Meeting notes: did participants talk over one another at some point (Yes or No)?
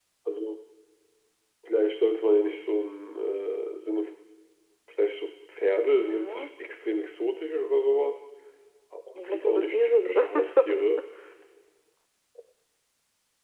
Yes